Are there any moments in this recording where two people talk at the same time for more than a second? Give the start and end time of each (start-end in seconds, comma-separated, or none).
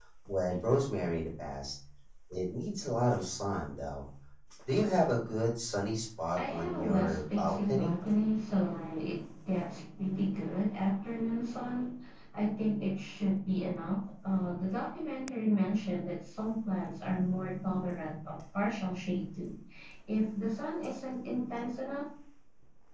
6.4-7.9